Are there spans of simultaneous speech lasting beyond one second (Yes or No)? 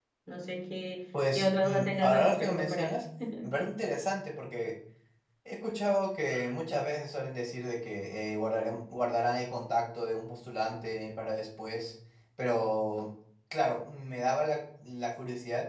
Yes